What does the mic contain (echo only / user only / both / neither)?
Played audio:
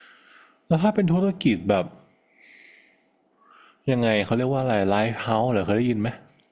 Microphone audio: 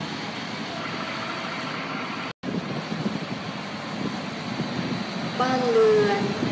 user only